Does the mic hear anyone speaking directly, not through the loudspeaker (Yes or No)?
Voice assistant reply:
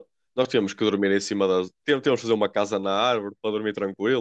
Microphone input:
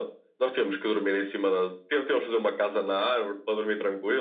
No